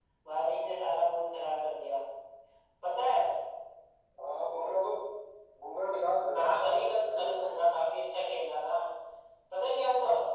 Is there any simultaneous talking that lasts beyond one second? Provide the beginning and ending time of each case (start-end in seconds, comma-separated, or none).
6.3-7.6